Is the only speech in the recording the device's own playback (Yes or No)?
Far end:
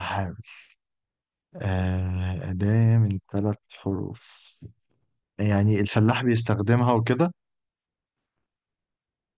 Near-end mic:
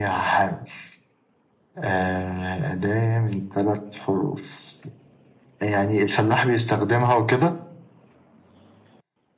Yes